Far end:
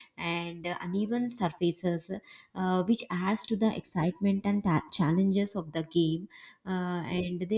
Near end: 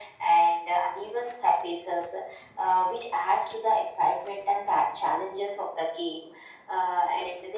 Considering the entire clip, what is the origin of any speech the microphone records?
echo only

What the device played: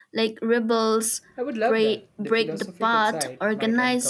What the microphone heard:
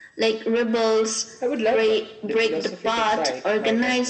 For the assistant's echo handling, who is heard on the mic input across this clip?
echo only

